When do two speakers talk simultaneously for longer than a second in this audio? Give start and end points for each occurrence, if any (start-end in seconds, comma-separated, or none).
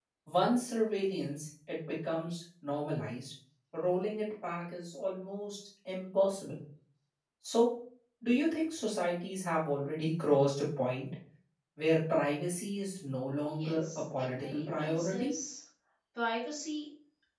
13.6-15.3